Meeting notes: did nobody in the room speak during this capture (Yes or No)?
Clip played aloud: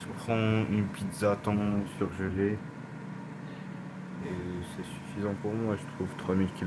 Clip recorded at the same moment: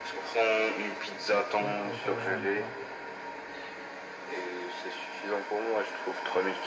No